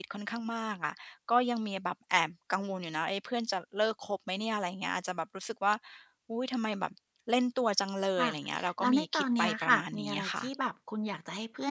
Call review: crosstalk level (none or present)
present